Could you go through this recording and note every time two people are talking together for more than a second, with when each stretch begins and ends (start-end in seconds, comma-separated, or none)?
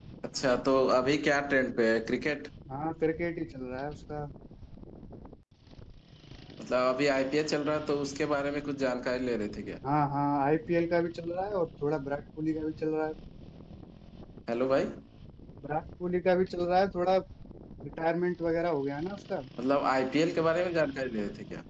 none